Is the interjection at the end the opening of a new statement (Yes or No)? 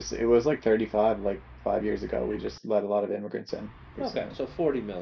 Yes